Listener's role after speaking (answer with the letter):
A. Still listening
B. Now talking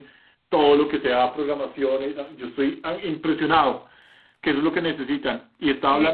A